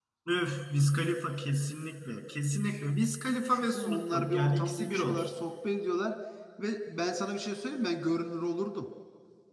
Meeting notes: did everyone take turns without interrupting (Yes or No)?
No